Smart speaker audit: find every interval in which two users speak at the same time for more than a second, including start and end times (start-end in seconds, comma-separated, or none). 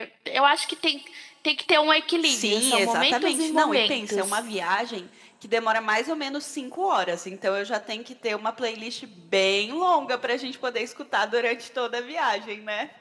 2.2-4.4